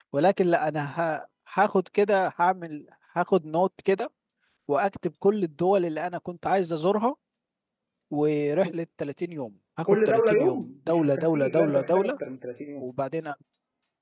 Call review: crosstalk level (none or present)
present